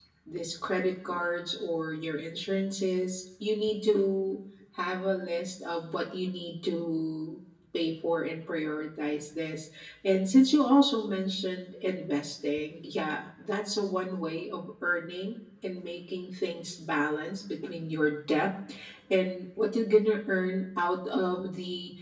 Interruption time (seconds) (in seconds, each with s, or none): none